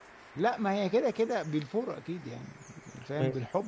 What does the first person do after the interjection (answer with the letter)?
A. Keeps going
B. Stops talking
A